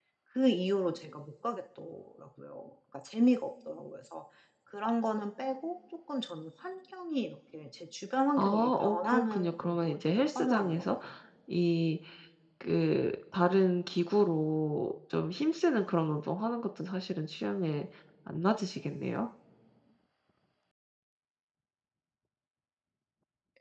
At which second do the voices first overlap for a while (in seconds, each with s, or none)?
8.4 s